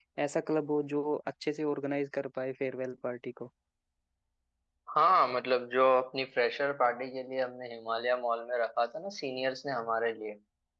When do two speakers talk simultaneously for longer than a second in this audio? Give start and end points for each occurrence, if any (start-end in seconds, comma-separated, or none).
none